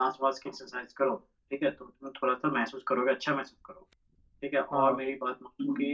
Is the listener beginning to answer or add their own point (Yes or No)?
No